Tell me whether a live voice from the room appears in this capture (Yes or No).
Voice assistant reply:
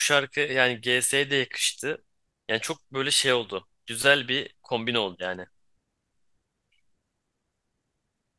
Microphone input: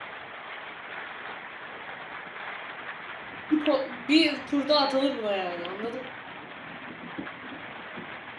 Yes